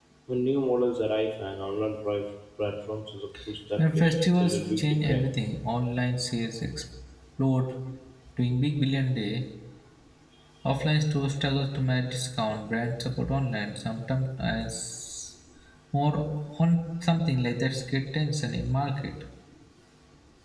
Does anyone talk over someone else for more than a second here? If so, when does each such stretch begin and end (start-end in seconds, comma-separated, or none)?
3.8-5.3